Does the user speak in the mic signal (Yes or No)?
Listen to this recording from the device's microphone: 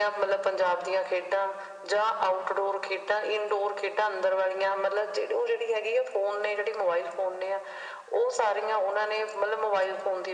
No